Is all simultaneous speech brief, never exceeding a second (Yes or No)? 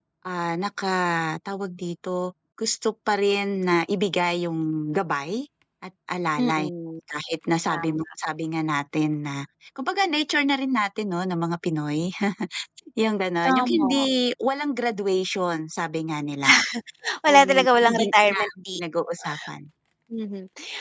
No